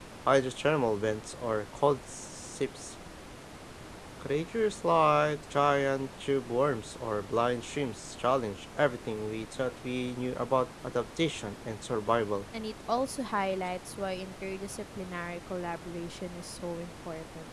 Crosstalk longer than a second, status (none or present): none